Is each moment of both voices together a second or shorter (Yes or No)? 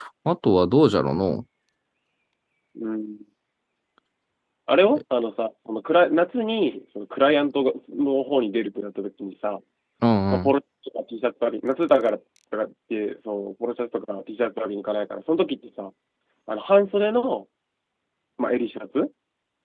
Yes